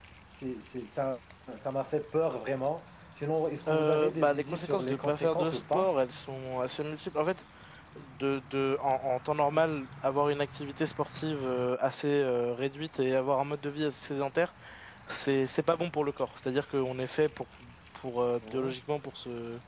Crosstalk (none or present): present